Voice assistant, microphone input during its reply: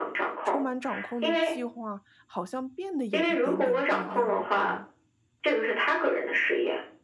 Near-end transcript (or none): 充满掌控的计划，好像变得有一点点不一样了，对吗？